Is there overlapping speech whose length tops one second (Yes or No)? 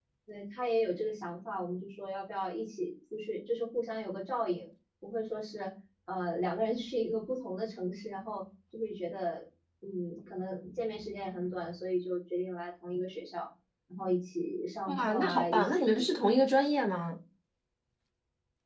Yes